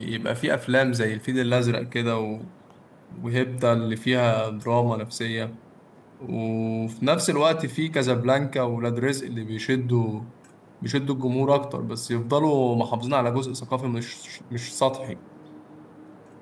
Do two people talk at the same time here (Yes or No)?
No